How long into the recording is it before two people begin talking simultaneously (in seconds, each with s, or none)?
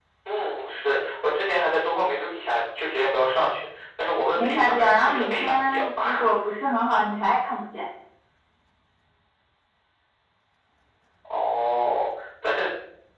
4.3 s